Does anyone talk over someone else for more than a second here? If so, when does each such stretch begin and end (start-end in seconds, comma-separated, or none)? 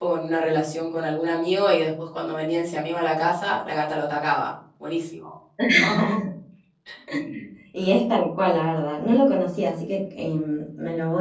none